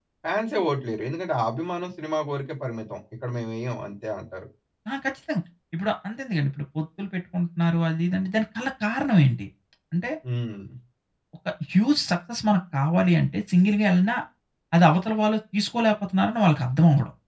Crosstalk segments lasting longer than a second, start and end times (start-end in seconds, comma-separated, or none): none